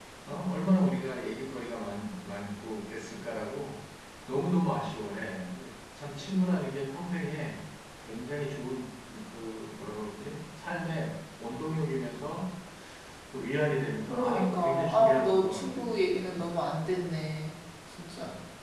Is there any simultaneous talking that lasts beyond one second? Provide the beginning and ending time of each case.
14.1-15.8

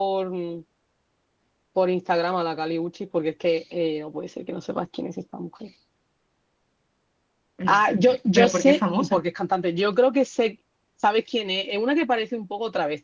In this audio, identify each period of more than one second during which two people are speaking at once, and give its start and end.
7.7-9.2

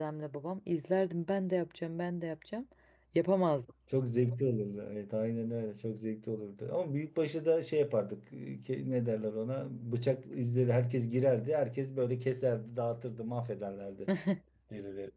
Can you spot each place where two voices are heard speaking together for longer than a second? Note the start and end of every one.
none

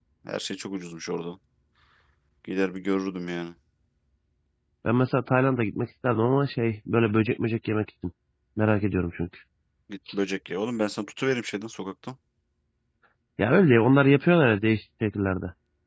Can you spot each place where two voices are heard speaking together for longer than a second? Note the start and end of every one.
none

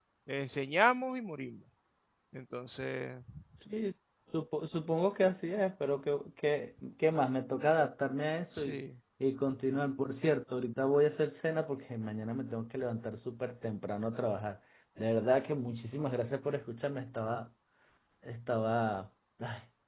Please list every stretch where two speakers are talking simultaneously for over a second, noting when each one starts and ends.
none

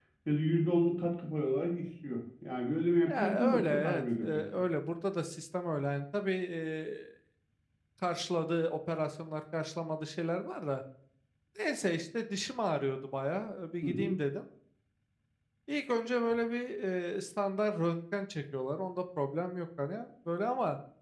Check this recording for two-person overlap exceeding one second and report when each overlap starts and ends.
3.0-4.4

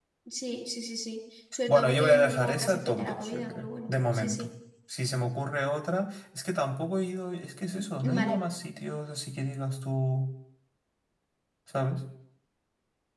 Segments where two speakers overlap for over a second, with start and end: 1.7-4.5

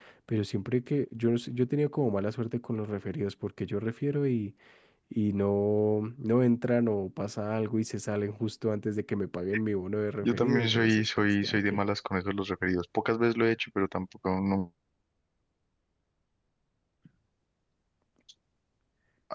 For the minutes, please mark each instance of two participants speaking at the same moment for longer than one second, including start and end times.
10.2-11.8

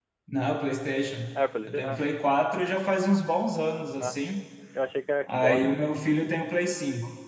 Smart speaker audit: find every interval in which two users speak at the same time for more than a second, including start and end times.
none

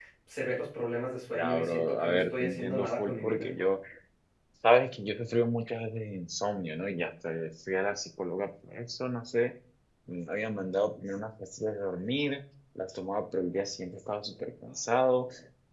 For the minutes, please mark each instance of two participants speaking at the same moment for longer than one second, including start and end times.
1.3-3.5

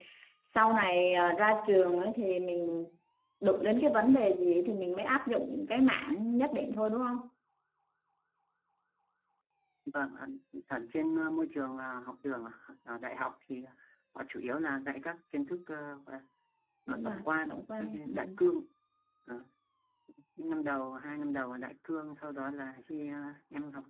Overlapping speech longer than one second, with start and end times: 16.9-18.4

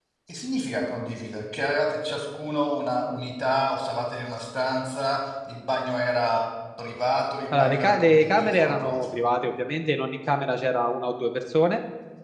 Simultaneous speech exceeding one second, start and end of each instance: 7.6-9.2

